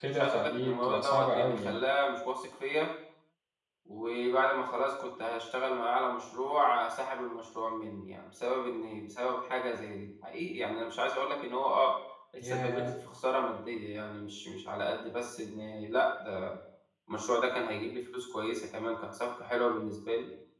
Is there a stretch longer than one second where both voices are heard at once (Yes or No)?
Yes